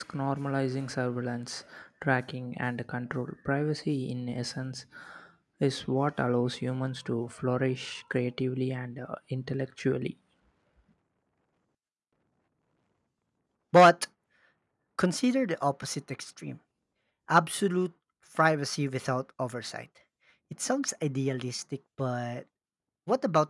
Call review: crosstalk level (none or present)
none